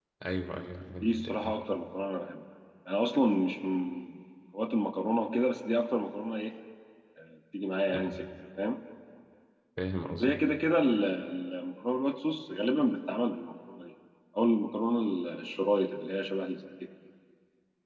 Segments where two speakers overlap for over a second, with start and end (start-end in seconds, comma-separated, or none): none